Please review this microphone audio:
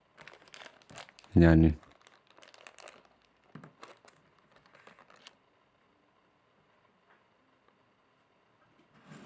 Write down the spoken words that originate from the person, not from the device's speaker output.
yani

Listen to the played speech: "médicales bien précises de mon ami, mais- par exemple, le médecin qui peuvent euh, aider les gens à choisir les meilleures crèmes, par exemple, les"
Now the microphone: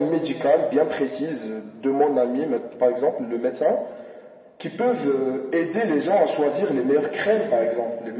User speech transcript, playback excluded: none

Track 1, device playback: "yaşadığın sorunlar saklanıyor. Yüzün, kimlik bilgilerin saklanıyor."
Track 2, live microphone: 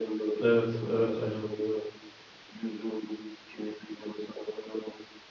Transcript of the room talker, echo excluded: evet, evet, aynen.

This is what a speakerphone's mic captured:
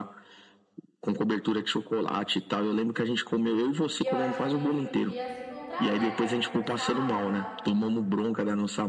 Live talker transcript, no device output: E eu acho que a gente podia se encontrar, né, pra conversar e tal.

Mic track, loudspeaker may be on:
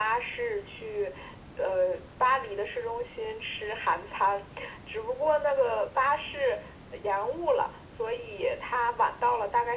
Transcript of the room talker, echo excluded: none

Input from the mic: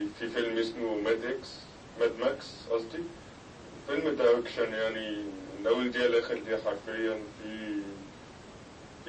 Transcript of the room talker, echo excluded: none

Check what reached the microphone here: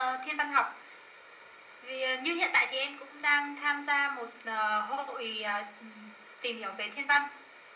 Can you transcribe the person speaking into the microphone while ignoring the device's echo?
none

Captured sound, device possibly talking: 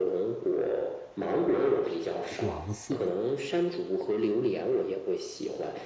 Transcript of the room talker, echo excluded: 黄色的？

